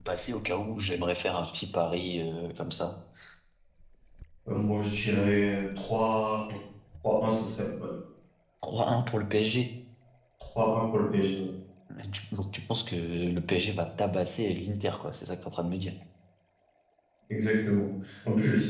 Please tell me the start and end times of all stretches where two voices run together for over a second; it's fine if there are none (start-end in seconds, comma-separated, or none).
none